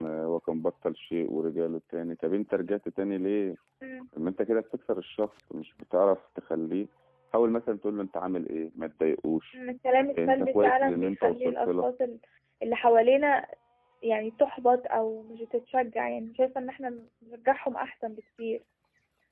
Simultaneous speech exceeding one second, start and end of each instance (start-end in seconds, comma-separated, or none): 10.1-11.9